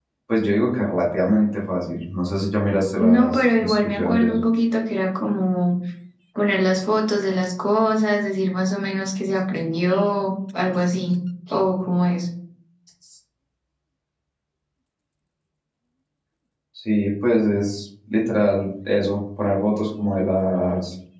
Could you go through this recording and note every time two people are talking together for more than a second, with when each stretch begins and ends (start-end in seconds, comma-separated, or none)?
3.0-4.4